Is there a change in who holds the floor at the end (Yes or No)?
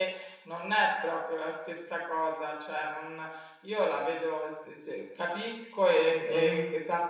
No